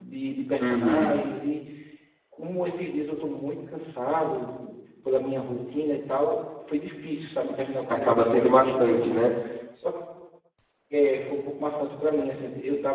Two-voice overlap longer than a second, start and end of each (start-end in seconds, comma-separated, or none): 7.9-9.2